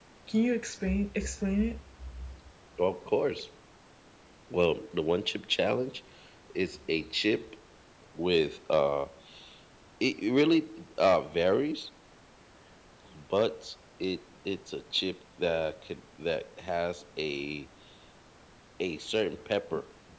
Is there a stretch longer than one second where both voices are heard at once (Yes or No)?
No